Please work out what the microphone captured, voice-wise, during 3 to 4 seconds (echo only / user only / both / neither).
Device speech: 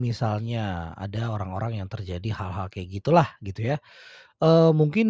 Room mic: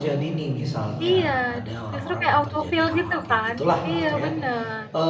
both